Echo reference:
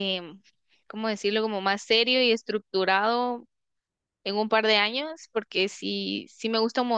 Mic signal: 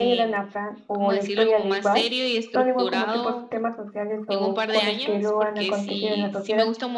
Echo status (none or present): present